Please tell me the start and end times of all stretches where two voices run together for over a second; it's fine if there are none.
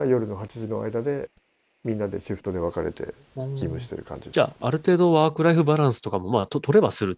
none

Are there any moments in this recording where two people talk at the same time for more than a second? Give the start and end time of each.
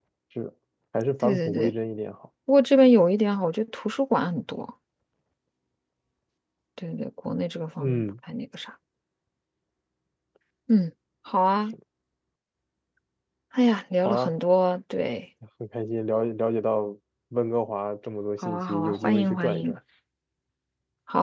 18.4-19.8

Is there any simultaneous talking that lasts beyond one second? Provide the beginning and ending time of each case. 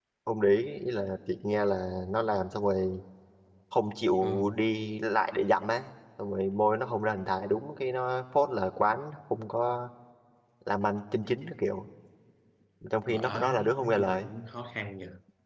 13.1-14.3

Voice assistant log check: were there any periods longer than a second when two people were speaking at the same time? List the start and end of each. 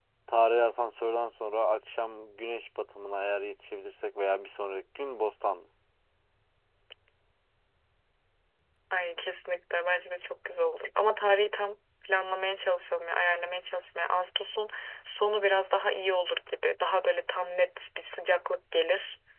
none

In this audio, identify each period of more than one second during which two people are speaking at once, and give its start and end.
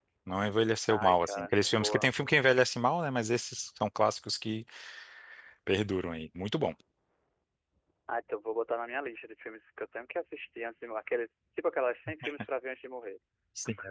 0.9-2.1

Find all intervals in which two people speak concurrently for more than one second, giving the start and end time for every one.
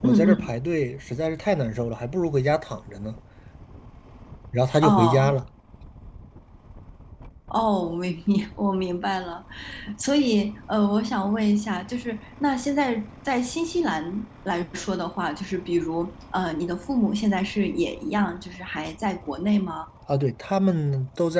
none

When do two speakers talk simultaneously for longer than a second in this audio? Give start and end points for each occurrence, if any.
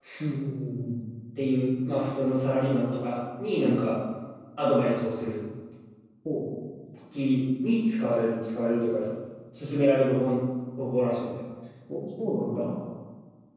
none

